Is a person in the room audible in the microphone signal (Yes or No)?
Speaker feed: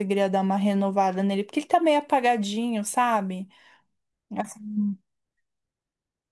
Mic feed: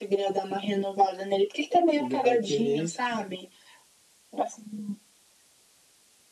Yes